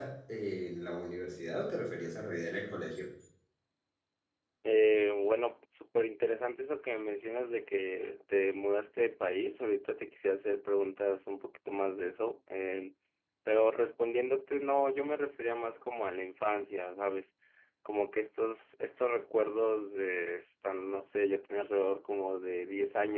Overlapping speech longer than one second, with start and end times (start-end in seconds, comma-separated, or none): none